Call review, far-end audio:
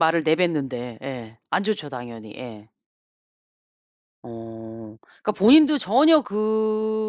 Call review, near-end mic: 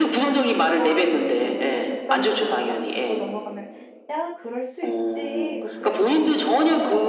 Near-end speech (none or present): present